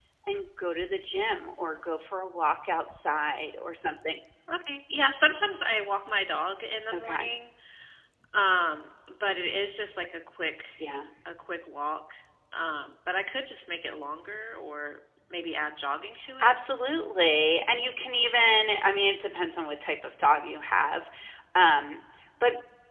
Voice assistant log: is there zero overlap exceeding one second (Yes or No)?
Yes